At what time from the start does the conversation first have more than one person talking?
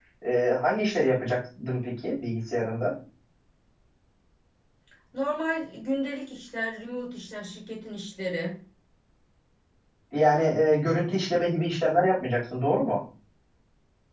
none

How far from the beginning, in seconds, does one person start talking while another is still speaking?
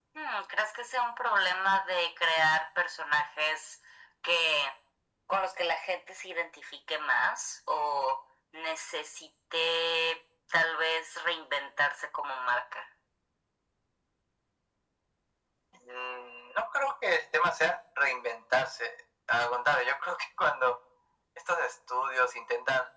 none

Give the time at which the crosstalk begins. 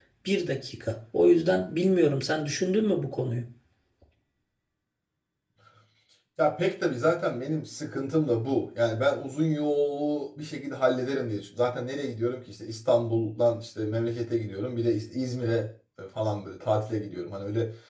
none

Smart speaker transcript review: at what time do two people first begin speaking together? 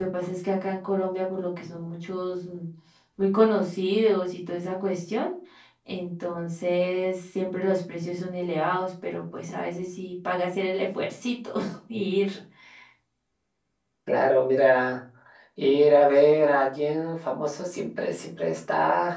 none

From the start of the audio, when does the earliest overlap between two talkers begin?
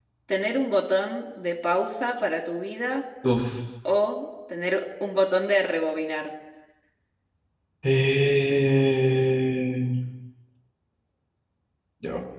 none

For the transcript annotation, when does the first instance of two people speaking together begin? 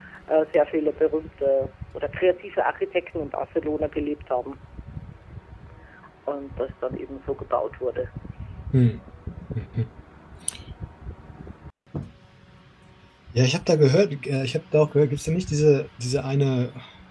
none

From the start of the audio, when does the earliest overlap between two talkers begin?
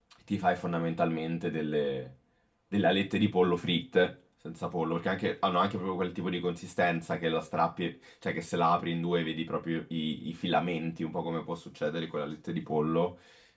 none

